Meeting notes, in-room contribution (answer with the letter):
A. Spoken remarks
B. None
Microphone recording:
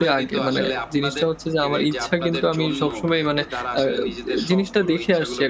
A